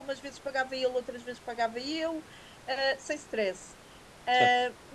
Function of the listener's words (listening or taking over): listening